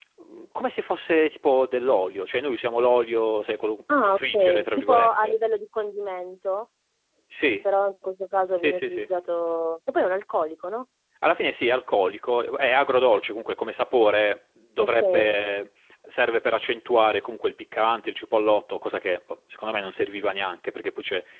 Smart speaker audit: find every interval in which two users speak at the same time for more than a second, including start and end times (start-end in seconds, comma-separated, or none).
4.0-5.4